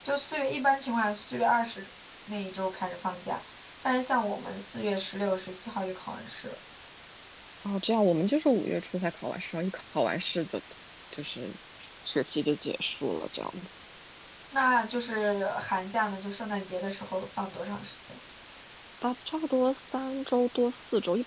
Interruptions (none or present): none